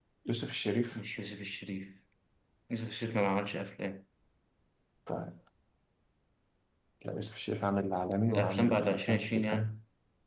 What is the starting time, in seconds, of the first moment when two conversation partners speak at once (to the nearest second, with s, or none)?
8 s